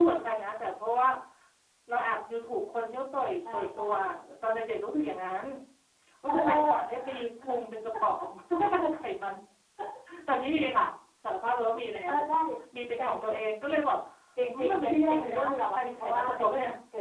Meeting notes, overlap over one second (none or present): present